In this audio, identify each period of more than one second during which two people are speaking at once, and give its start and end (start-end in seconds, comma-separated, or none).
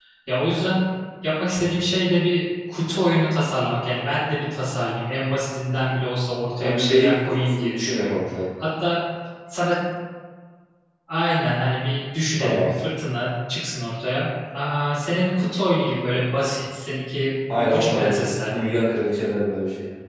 6.6-8.2, 17.5-18.8